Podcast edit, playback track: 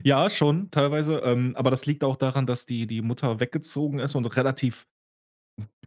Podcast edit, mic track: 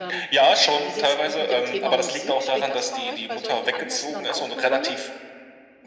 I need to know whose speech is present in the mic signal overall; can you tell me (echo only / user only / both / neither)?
both